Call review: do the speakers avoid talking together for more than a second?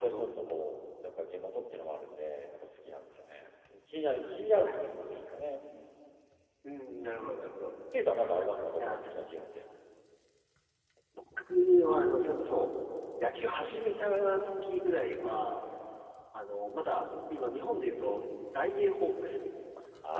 Yes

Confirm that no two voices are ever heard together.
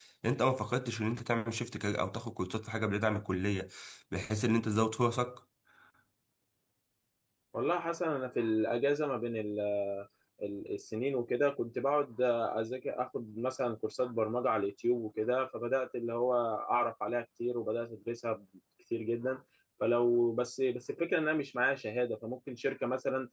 Yes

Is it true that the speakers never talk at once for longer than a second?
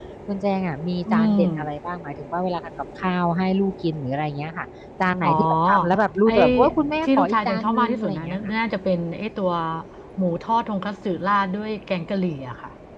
No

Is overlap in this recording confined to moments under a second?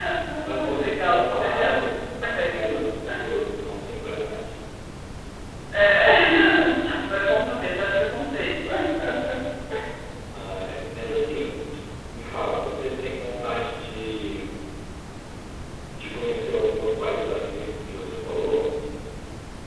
No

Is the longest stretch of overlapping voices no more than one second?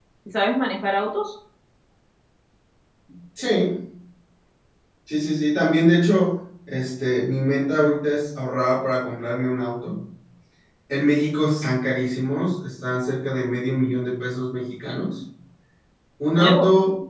Yes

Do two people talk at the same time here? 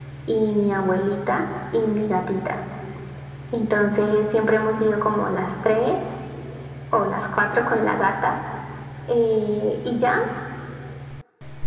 No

